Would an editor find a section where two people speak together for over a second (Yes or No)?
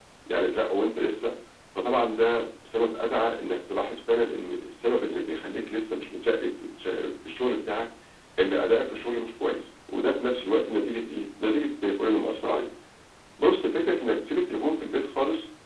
No